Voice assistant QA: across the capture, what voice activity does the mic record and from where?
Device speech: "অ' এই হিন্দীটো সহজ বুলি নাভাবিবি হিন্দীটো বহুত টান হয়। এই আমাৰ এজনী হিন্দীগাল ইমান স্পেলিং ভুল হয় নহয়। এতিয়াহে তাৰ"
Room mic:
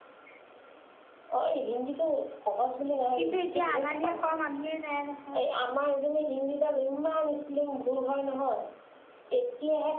both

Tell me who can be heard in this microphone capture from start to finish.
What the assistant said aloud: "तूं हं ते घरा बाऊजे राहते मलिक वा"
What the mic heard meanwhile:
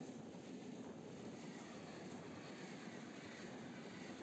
neither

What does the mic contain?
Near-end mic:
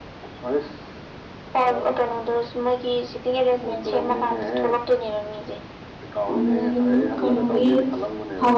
both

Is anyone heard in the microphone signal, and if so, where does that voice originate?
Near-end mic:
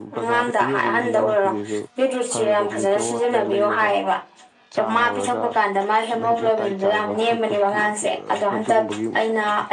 both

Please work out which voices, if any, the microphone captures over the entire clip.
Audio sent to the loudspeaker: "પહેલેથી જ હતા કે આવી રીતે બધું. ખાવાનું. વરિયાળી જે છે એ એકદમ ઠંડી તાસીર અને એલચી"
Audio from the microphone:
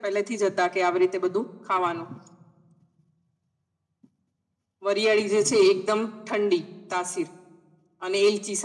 echo only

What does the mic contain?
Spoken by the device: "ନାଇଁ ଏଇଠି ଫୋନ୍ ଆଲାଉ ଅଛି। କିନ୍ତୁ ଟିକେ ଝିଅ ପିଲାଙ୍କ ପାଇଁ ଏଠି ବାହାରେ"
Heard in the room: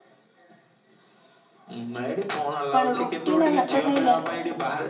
both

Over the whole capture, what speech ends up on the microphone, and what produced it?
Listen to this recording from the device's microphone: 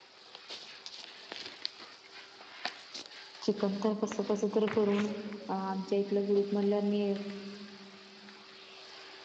user only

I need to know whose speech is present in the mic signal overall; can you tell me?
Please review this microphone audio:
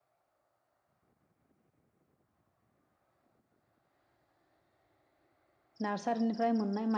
user only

